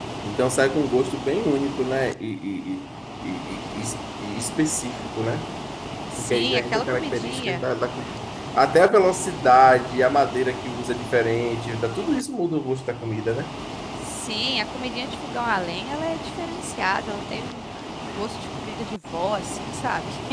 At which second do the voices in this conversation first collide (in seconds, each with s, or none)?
6.2 s